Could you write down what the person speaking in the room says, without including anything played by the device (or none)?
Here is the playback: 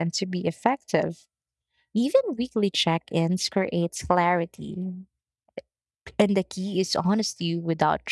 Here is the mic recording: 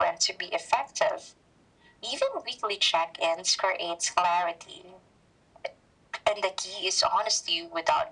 none